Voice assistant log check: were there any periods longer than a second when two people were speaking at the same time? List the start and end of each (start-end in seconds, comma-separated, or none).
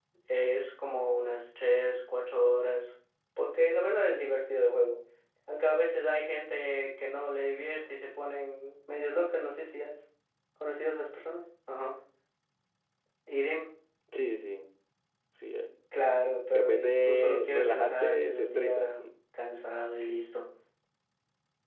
16.5-18.9